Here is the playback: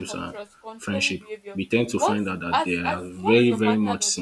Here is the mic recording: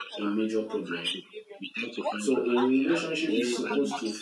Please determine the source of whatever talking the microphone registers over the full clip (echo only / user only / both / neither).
both